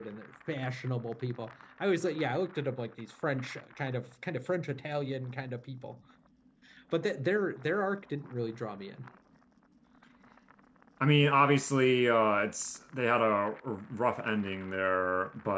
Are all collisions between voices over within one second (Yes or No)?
Yes